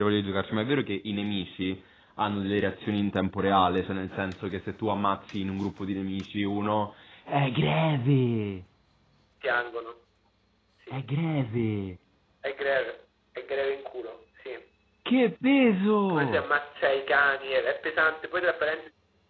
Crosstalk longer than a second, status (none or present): none